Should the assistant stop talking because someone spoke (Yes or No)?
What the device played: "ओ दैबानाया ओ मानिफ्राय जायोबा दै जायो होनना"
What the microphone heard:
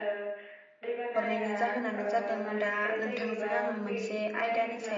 Yes